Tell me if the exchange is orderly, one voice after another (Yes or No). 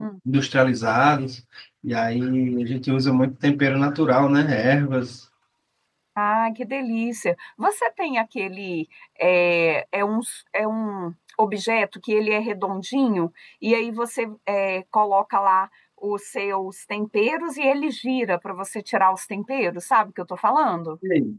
Yes